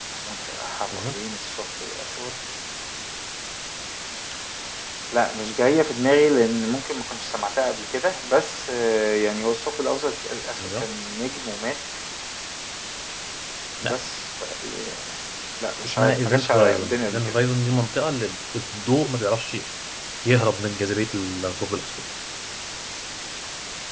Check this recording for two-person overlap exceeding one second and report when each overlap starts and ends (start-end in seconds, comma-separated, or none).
15.8-17.2